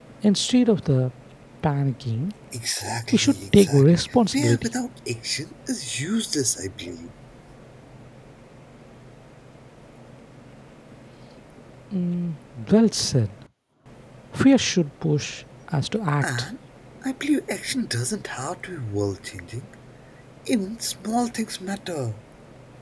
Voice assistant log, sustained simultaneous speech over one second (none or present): present